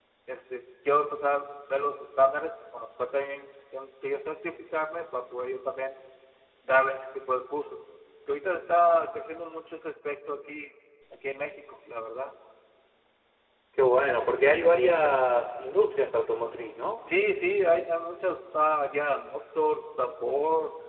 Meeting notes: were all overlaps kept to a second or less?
Yes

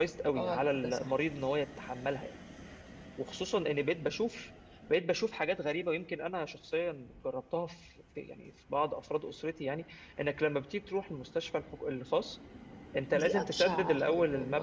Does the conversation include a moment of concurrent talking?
Yes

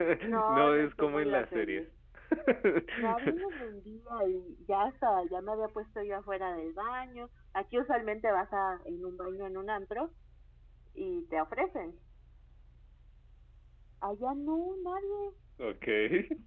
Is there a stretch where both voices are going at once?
Yes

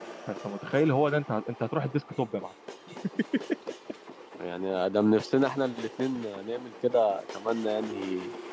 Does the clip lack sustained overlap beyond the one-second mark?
Yes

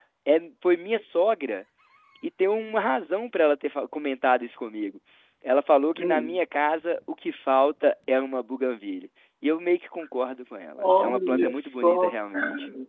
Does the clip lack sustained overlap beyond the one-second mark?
No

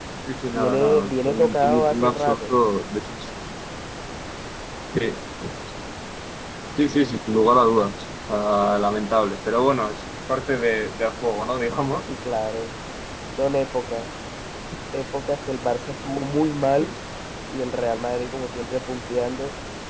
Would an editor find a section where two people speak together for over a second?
Yes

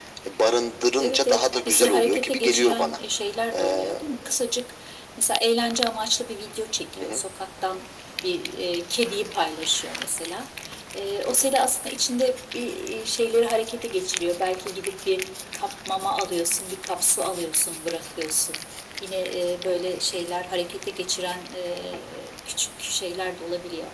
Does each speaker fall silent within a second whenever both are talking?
No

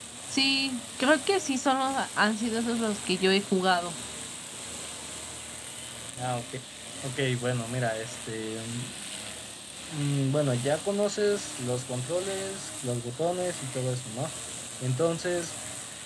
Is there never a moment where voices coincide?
Yes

